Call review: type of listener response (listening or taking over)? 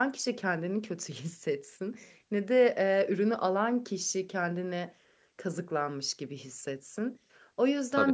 listening